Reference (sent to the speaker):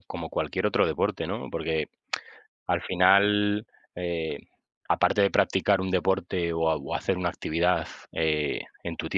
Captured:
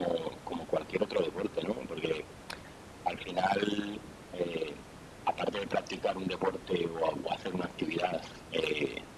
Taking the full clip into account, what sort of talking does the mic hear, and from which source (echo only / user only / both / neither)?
echo only